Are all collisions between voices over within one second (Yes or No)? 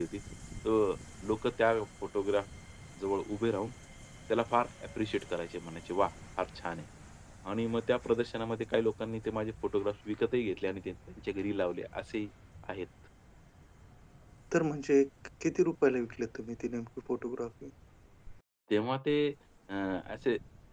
Yes